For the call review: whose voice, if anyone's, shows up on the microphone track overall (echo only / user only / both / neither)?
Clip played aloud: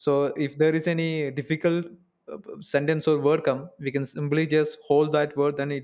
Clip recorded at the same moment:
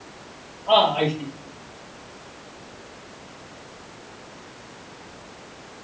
user only